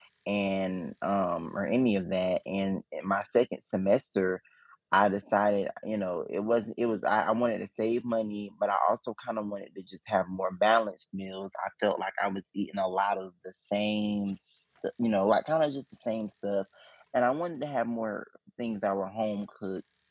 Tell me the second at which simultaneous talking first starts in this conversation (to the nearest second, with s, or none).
none